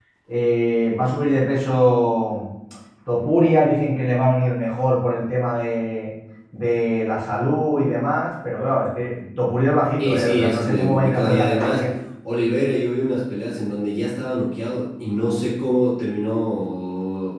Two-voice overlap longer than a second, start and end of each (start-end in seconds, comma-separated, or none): 10.0-11.8